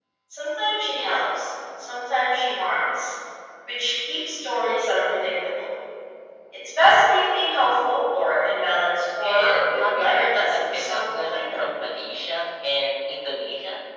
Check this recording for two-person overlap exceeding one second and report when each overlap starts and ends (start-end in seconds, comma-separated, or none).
9.2-11.9